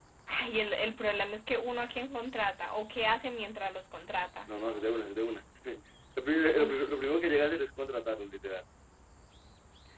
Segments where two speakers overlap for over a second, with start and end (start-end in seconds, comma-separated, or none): none